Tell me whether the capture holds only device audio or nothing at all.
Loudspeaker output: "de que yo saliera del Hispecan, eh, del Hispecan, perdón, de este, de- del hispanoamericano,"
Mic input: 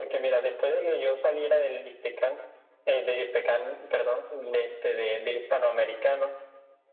Yes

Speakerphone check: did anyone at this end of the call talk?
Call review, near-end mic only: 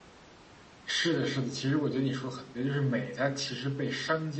No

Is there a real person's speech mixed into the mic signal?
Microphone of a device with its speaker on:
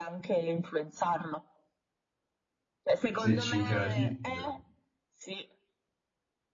Yes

